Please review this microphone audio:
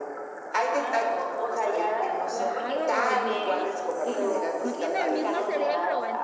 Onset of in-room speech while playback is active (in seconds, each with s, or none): 2.4 s